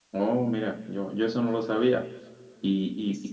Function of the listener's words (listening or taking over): listening